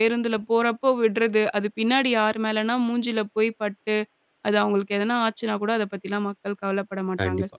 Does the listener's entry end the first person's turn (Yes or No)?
Yes